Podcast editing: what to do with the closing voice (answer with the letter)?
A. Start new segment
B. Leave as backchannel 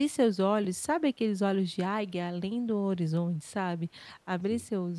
B